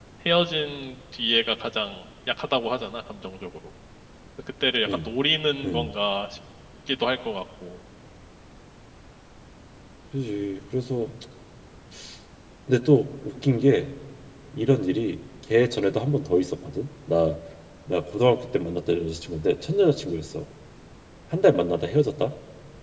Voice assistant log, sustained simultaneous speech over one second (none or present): none